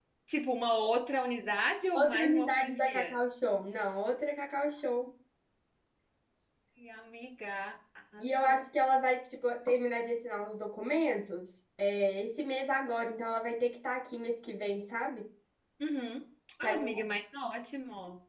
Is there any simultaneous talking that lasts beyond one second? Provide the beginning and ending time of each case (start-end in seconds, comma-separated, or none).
1.9-3.2